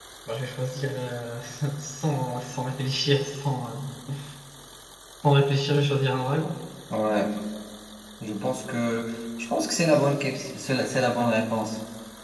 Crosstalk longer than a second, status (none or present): none